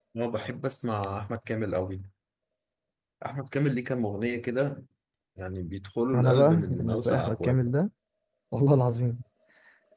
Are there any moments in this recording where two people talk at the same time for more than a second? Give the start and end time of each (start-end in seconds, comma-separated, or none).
6.1-7.6